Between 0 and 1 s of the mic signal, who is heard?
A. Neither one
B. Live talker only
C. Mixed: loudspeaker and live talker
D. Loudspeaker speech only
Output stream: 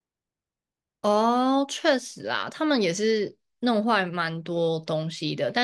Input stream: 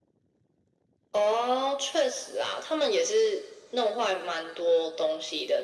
A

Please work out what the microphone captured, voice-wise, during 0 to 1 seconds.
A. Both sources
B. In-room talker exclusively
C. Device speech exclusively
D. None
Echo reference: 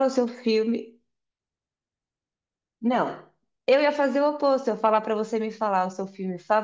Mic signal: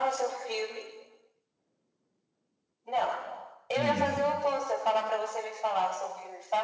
C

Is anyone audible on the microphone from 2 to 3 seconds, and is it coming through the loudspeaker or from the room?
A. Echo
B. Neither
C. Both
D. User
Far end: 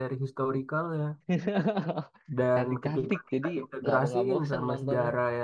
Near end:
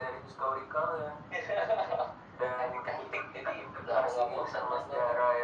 A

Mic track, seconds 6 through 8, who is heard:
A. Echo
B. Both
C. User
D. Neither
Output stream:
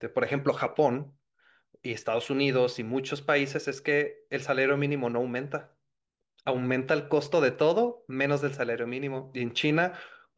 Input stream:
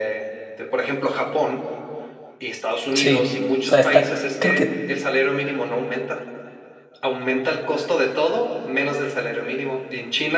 A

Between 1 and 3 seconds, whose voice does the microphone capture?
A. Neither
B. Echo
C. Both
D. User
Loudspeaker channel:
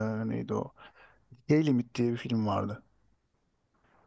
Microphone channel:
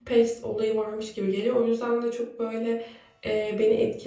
D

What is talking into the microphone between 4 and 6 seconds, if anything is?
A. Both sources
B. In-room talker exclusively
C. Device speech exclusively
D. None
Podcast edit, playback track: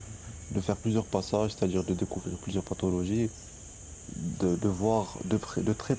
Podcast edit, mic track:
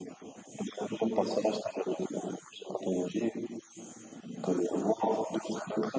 C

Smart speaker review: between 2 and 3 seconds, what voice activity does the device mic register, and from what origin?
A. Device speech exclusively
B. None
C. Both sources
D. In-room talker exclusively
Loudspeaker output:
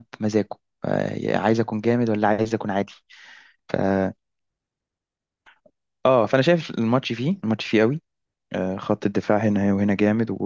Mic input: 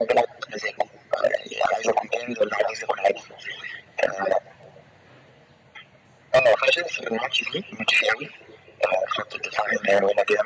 A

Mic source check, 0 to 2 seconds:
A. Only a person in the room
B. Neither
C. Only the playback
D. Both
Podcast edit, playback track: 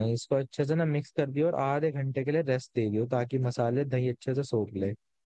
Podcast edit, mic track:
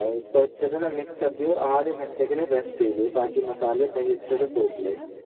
C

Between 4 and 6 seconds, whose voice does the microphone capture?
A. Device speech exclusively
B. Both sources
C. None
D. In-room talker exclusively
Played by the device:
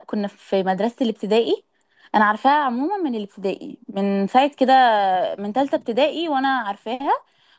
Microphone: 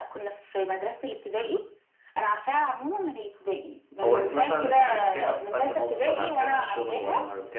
B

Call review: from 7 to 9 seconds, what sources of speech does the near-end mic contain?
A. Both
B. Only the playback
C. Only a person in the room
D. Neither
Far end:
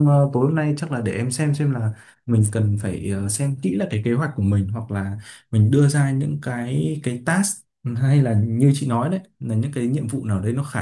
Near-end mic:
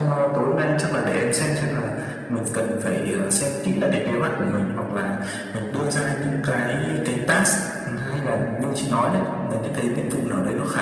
B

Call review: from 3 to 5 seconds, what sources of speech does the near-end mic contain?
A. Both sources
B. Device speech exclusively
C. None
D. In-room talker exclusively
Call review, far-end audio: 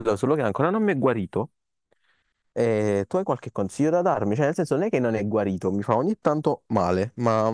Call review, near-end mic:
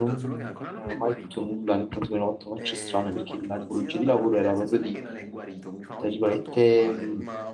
A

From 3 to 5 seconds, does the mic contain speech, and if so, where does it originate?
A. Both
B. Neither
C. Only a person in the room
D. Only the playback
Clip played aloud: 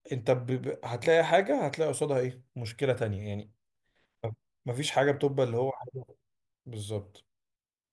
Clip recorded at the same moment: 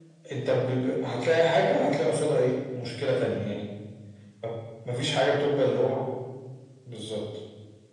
D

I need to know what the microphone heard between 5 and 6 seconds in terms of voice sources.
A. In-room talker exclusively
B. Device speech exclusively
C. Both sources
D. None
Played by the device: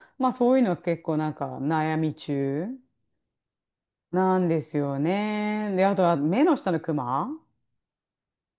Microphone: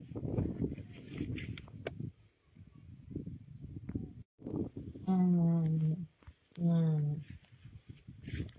A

